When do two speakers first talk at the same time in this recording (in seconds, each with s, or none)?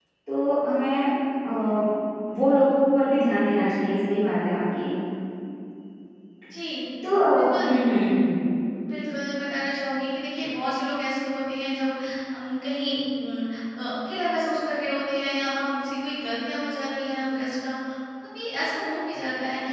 none